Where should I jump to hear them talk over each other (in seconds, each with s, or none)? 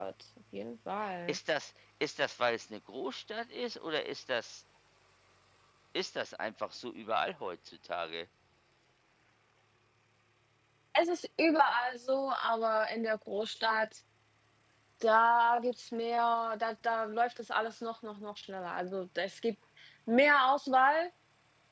none